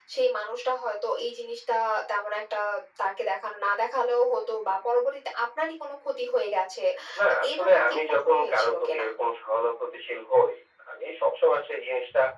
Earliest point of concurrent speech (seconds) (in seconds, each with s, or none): 7.3 s